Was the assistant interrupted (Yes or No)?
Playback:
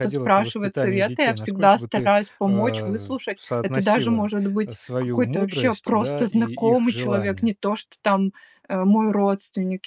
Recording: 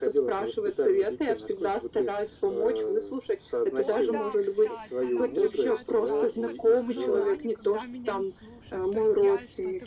Yes